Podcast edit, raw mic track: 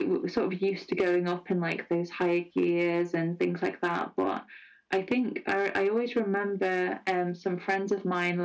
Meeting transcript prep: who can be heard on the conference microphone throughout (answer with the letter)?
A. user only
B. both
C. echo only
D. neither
C